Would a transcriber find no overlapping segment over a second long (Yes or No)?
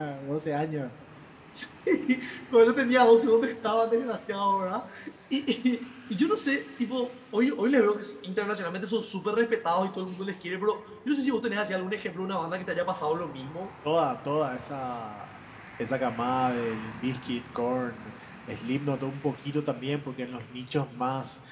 Yes